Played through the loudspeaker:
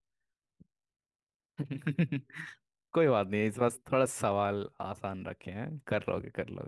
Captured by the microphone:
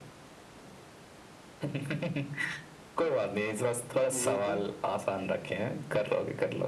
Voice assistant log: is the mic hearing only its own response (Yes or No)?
No